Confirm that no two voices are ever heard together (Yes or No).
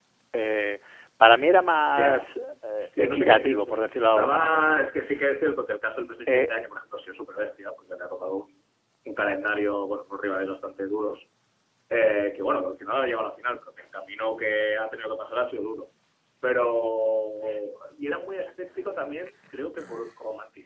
No